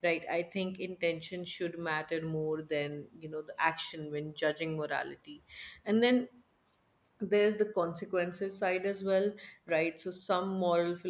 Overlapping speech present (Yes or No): No